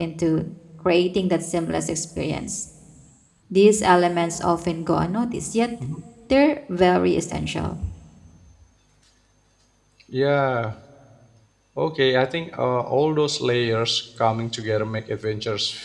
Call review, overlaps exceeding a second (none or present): none